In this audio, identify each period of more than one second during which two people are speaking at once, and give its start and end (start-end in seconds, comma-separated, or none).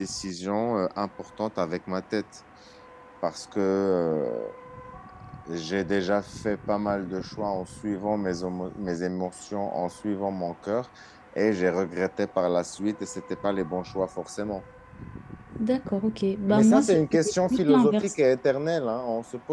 16.5-18.2